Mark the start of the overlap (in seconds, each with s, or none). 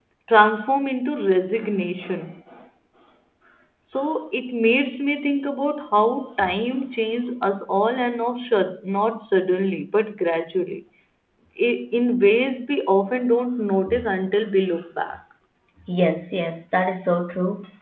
none